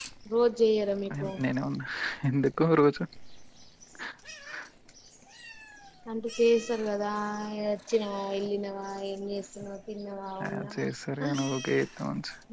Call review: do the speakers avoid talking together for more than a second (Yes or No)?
Yes